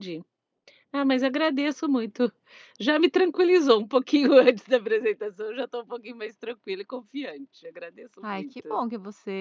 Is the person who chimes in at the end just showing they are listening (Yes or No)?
No